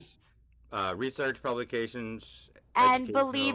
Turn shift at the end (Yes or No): Yes